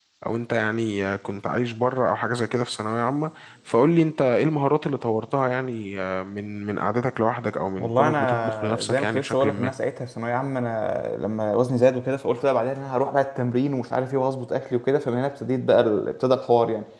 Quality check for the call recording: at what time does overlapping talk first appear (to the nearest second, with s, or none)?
8 s